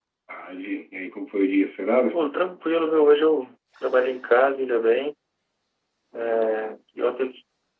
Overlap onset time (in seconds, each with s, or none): none